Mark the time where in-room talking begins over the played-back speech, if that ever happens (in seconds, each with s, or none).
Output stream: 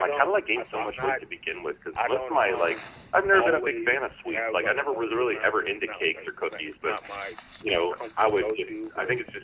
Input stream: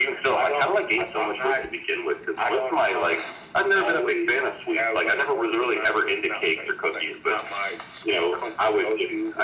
none